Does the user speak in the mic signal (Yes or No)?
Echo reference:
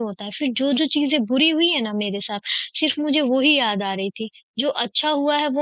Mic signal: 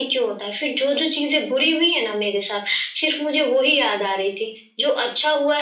No